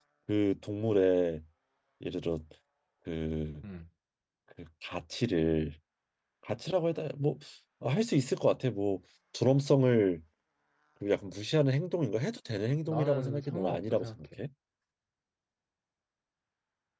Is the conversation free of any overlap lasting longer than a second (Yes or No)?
No